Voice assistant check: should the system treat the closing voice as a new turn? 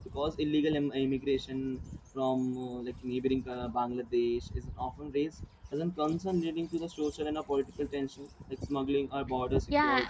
Yes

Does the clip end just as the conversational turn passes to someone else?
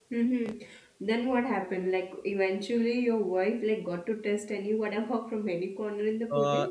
Yes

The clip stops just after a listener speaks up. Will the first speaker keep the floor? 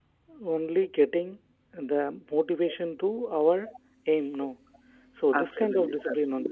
No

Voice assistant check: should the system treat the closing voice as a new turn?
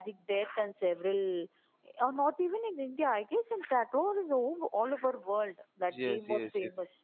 Yes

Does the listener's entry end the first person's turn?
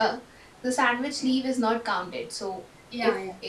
No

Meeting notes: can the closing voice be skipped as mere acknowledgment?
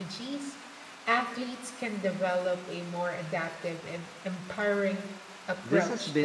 No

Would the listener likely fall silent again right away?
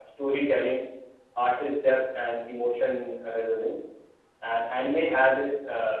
Yes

